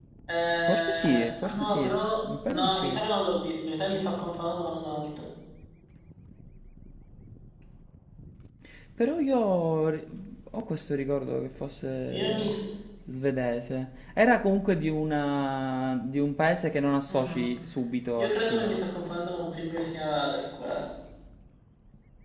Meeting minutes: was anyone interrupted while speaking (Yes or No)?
Yes